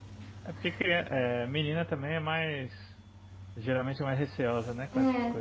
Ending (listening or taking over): taking over